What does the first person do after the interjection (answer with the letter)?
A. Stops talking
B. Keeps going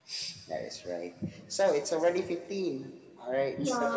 A